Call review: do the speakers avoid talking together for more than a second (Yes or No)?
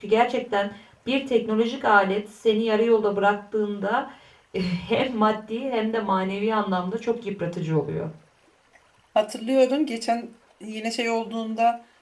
Yes